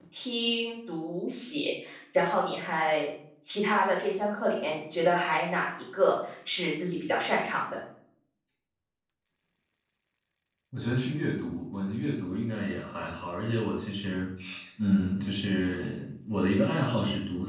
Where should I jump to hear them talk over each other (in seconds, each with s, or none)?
none